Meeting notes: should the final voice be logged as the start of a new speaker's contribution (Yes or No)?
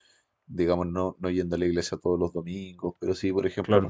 No